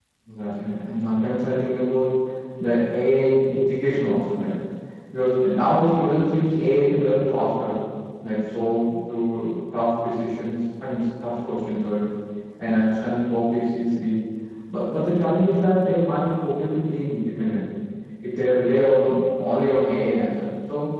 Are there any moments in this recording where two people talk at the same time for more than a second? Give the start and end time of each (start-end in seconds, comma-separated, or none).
none